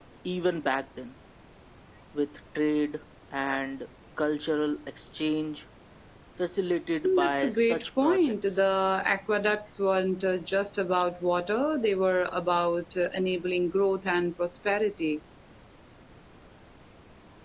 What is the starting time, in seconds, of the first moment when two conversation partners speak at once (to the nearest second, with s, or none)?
7 s